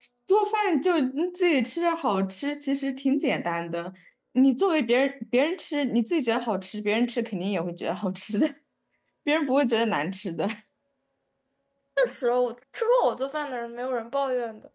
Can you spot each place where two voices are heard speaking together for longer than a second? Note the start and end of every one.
none

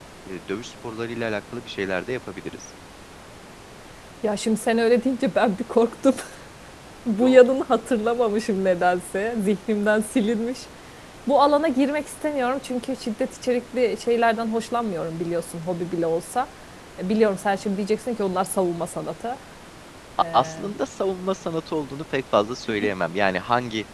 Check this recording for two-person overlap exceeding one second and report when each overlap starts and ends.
none

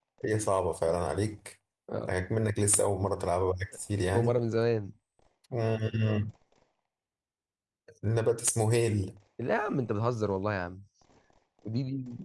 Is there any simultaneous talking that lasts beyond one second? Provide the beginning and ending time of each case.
none

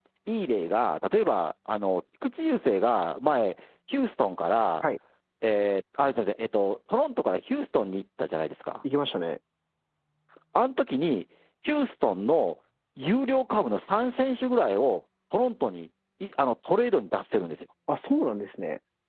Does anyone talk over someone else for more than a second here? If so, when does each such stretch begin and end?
none

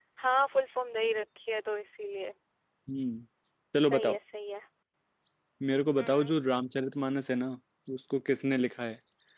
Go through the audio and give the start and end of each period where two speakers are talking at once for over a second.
none

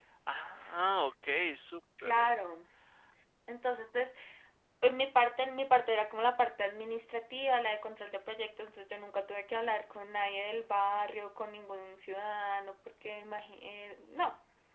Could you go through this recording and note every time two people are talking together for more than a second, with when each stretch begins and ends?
none

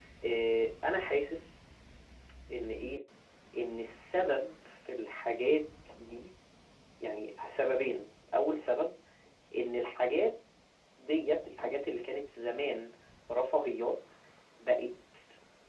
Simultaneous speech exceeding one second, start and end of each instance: none

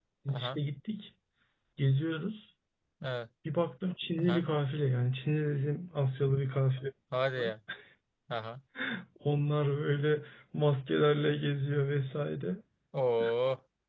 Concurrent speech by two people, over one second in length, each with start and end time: none

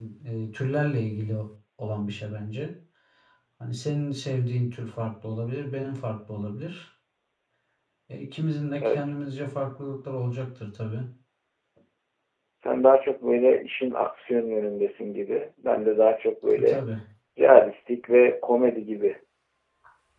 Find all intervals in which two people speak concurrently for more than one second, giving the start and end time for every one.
none

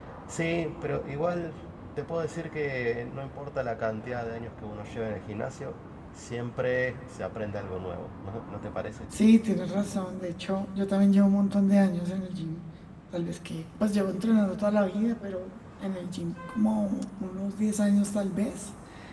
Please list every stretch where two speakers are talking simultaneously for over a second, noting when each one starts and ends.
none

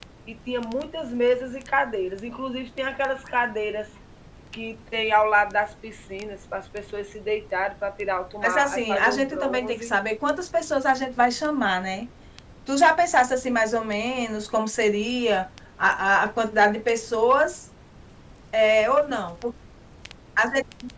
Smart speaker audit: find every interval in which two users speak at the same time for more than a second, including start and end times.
8.4-9.9

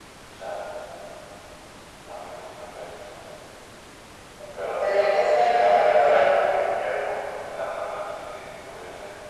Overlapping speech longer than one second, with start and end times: 4.6-6.4

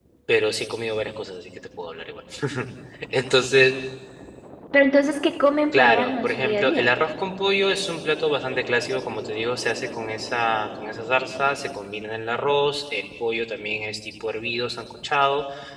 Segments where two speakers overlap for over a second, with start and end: 5.7-6.9

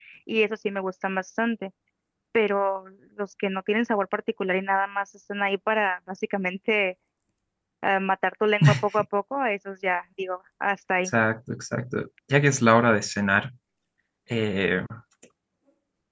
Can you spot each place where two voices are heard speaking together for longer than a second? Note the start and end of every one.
none

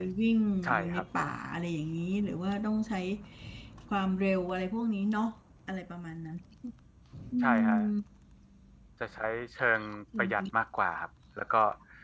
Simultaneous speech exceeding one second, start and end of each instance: none

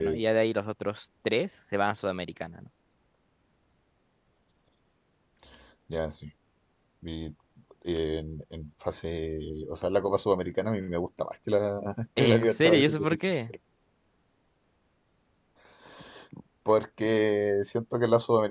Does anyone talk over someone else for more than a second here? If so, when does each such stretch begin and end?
12.2-13.4

